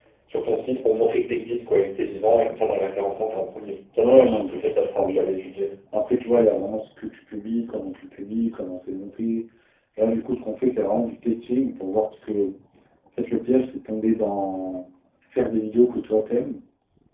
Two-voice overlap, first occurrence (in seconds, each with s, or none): 4.0 s